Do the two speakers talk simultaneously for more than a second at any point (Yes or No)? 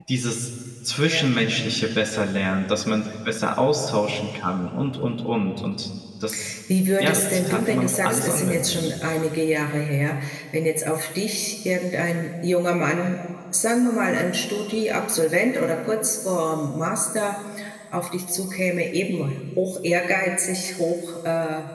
Yes